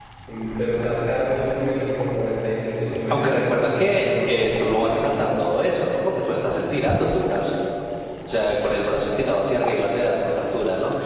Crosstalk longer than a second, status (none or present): present